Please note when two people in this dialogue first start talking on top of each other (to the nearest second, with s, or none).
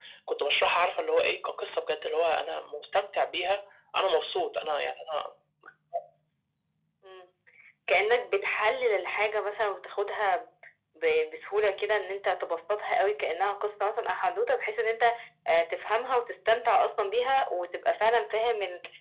none